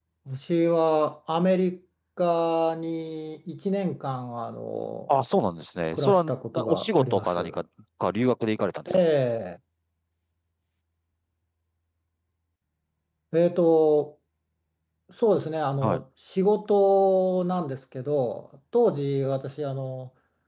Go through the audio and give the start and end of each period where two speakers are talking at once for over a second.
5.9-7.4

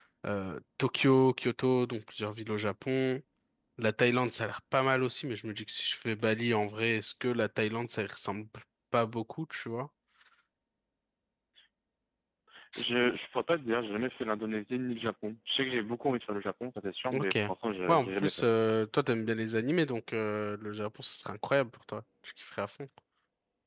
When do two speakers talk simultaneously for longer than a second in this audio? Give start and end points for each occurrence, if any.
none

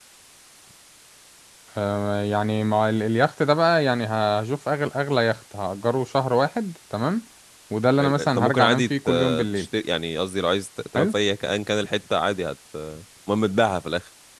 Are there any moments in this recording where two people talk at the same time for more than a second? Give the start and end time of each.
8.0-9.7

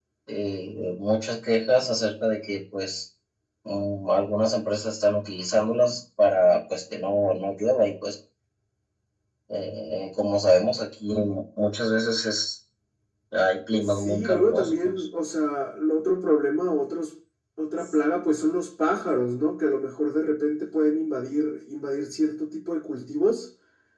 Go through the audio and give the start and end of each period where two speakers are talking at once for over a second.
13.8-15.1

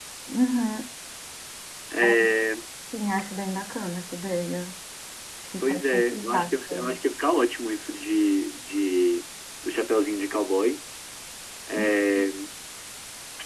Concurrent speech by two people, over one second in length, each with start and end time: 5.6-7.0

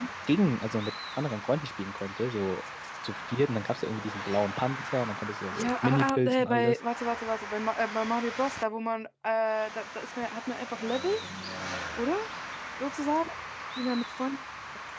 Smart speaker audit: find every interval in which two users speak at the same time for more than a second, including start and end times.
5.5-6.8

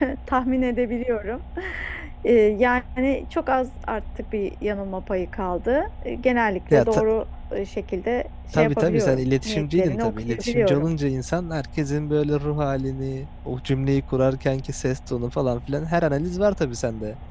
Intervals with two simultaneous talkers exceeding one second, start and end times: 8.6-10.9

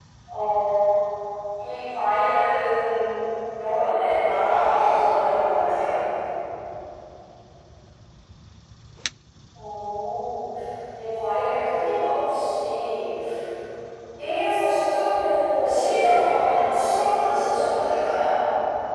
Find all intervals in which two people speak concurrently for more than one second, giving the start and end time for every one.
4.0-5.7, 15.5-17.8

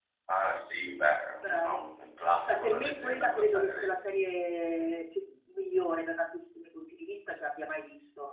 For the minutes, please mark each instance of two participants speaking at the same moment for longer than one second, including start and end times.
2.5-3.9

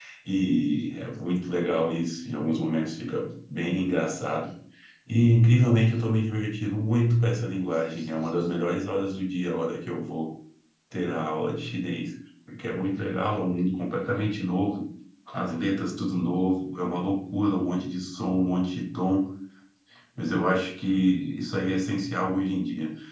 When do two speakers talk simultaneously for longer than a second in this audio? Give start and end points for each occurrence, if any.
none

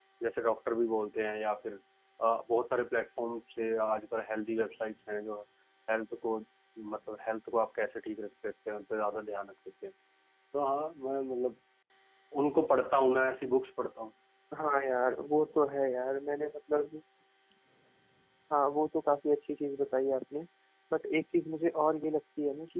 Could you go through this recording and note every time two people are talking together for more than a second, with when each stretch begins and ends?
none

